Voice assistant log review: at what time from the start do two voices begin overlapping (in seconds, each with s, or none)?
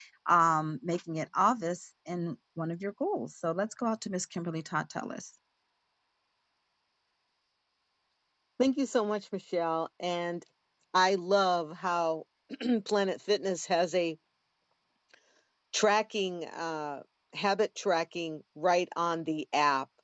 none